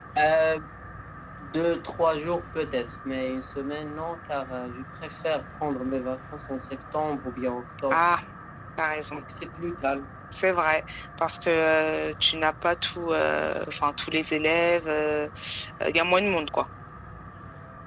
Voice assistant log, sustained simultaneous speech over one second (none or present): none